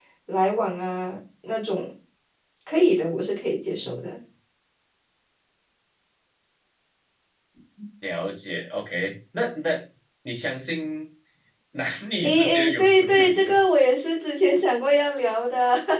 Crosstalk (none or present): present